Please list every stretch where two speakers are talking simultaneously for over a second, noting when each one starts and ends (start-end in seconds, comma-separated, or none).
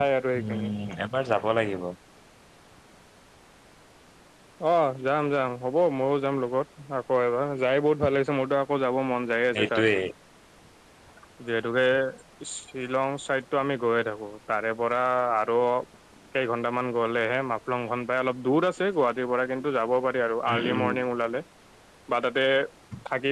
none